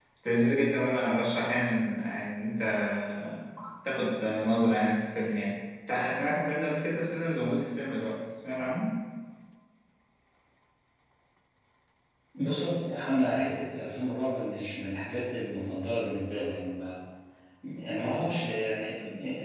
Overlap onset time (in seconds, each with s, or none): none